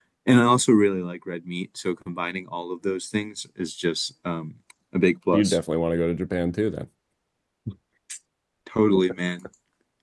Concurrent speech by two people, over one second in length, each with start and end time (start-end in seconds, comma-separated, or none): none